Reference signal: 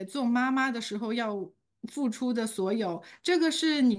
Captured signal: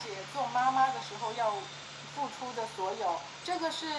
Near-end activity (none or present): none